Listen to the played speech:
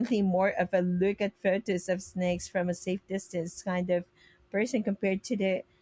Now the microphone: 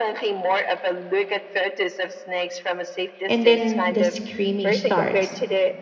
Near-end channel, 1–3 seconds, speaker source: echo only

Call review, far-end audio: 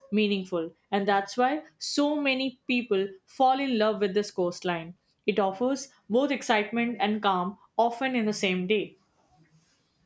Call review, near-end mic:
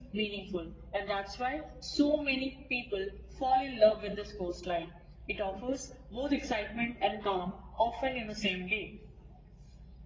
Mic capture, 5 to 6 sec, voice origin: echo only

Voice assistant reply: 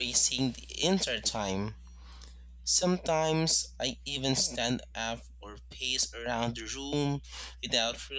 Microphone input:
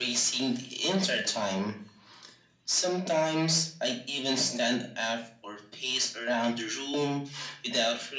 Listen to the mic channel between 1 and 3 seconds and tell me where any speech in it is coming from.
echo only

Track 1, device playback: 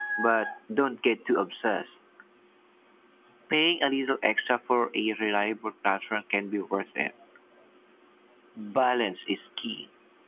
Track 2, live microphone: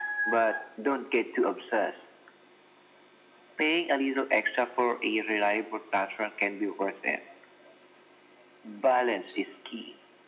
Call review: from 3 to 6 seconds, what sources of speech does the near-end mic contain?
echo only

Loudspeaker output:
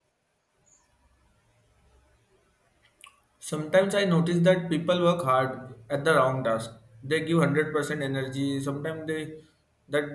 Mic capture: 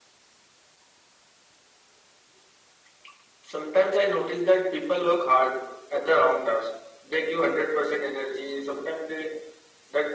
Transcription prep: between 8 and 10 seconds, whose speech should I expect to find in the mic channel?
echo only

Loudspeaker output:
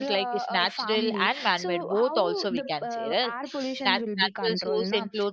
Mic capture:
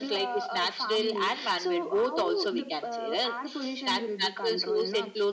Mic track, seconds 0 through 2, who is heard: echo only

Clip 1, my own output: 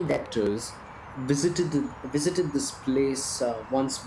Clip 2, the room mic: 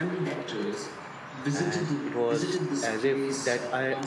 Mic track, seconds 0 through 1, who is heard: echo only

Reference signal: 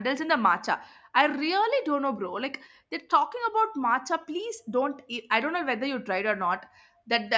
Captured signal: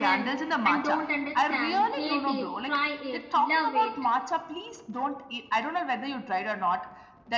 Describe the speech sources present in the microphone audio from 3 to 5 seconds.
both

